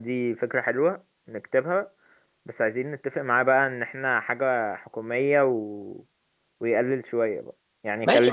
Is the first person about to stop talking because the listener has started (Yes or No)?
Yes